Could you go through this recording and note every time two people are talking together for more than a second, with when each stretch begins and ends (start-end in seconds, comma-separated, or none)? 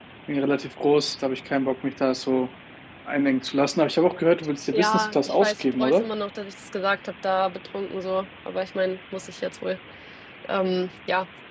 4.7-6.1